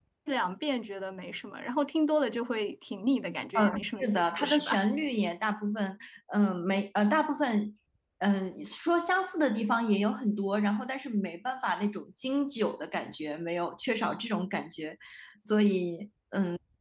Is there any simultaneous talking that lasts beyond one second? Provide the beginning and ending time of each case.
3.5-4.8

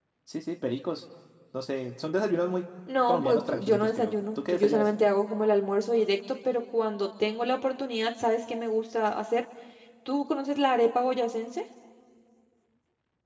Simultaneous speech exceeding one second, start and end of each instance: 3.1-4.9

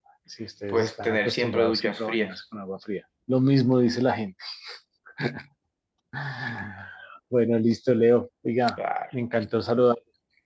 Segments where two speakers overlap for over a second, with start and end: 0.7-2.4

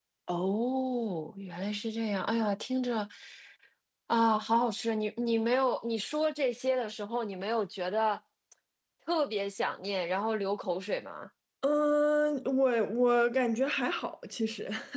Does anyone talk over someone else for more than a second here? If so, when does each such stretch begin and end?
none

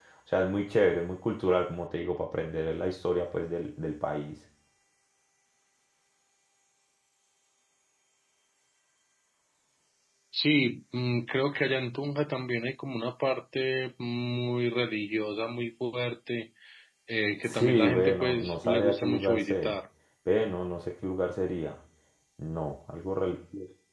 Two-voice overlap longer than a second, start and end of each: 17.4-19.7

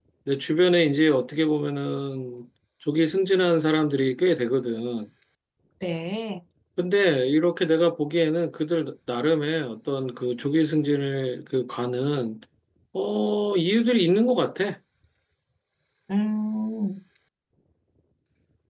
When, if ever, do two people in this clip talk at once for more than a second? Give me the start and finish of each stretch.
none

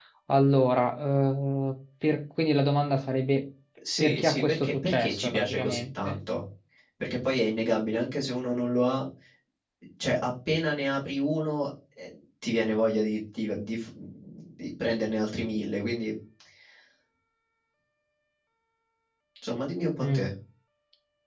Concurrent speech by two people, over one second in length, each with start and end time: 4.0-6.2

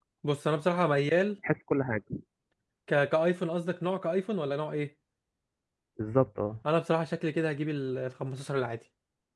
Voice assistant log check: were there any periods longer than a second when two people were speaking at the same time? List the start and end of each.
none

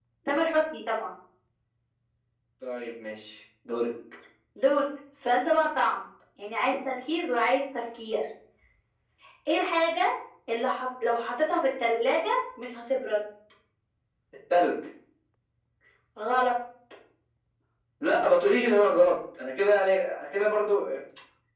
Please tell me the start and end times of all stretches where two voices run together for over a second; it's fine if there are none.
none

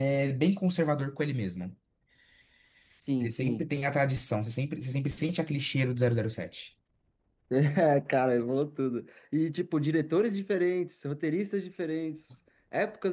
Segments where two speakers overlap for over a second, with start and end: none

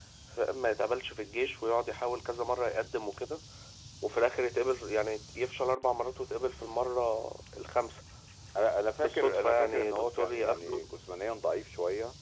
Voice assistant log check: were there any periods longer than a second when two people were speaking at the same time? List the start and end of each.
9.0-10.8

